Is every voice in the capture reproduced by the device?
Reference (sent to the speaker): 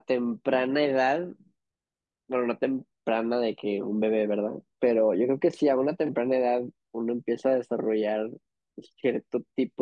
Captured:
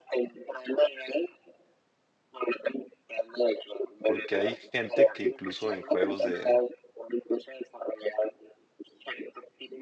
No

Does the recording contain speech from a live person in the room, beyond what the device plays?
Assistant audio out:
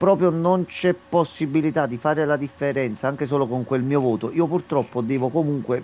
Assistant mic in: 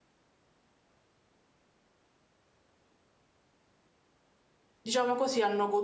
Yes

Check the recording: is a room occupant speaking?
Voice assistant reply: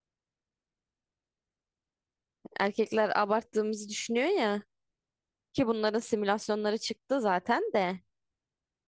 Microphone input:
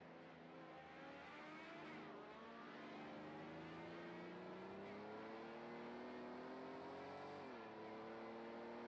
No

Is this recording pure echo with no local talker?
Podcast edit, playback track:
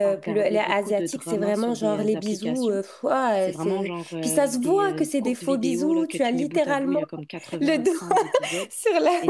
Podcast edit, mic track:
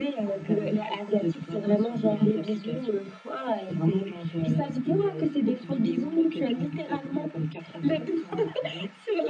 Yes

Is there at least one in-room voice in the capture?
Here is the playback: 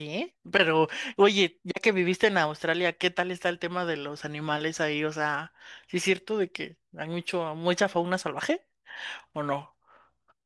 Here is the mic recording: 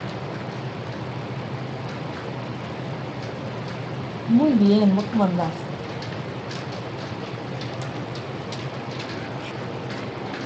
Yes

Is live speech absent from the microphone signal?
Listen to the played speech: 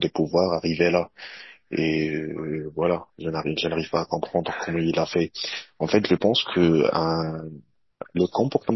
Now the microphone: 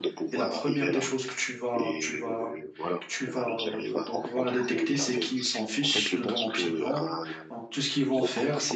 No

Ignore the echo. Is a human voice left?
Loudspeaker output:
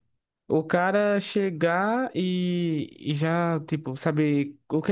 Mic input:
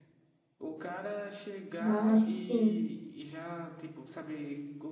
Yes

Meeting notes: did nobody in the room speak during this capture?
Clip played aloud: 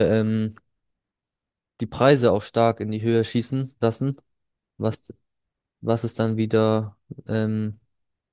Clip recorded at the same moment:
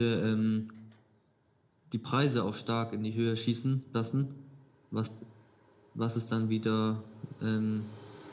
Yes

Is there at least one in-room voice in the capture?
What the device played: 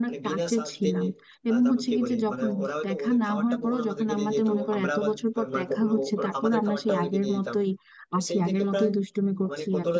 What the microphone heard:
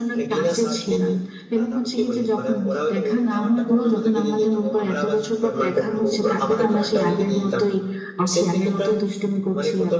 No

